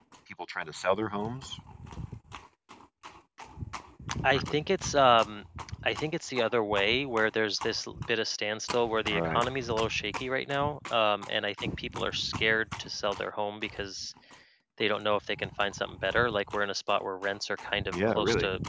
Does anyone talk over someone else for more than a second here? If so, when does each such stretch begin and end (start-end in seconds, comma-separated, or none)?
none